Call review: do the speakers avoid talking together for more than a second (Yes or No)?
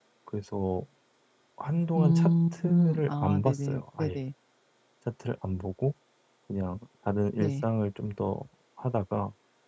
No